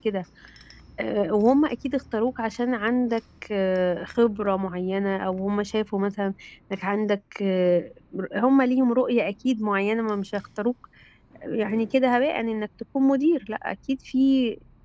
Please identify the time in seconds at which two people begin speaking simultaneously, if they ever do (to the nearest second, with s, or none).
none